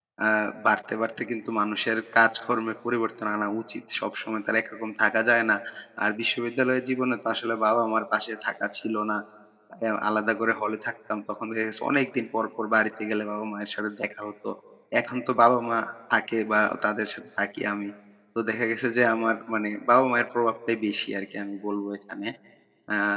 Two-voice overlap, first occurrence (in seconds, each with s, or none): none